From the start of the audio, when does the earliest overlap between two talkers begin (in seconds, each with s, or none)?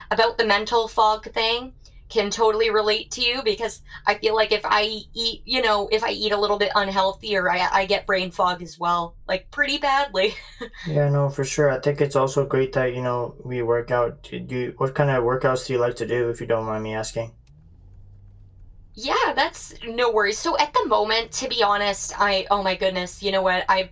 none